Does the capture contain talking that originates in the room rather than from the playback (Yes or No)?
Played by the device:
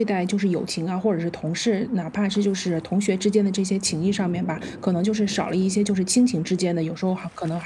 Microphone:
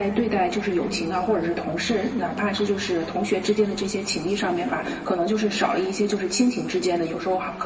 No